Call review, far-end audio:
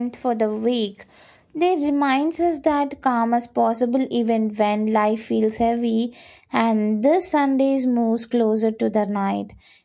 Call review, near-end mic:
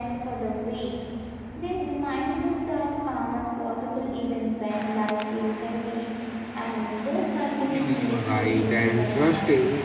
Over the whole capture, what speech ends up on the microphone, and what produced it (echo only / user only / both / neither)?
both